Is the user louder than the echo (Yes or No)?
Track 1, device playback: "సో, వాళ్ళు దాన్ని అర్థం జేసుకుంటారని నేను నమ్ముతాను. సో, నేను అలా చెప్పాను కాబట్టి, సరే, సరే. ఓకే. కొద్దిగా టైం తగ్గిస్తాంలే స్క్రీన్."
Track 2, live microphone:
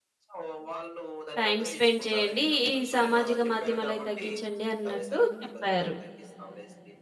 Yes